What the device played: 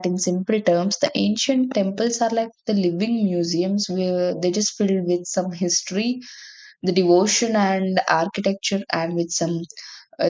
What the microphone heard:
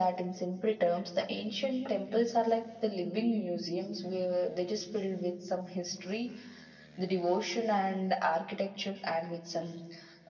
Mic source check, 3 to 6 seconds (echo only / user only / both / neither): echo only